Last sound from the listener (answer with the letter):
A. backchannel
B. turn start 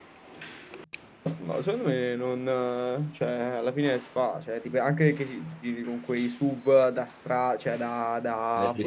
B